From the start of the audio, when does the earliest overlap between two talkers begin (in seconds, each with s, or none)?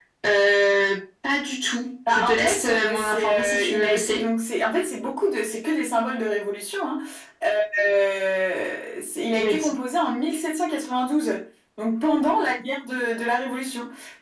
2.1 s